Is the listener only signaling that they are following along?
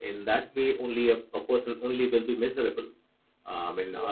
Yes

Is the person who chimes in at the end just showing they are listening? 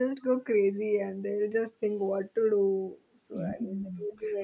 No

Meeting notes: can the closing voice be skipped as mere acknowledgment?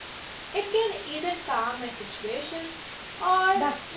No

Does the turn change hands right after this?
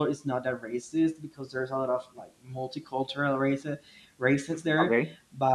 No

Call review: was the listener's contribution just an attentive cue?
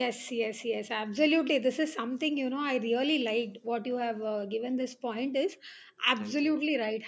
Yes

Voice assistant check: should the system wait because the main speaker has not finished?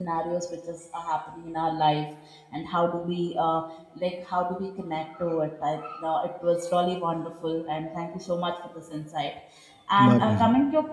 Yes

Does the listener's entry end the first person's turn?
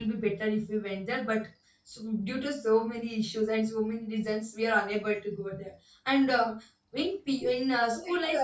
Yes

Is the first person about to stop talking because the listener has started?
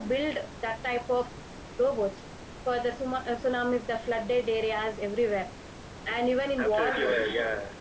Yes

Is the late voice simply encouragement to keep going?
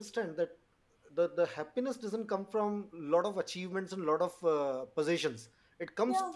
Yes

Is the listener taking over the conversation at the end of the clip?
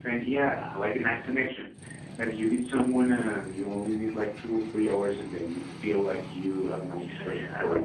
Yes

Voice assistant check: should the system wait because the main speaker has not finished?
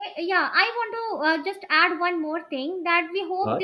Yes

